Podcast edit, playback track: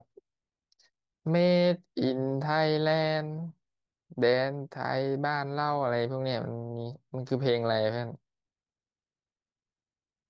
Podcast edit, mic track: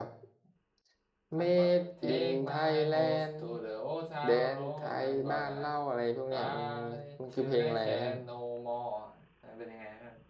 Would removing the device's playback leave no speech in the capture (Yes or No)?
No